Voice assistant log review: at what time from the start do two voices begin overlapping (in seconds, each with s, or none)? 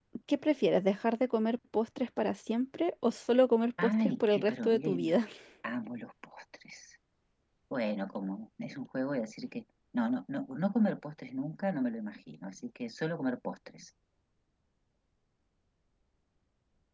3.8 s